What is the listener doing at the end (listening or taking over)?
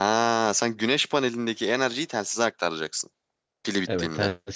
taking over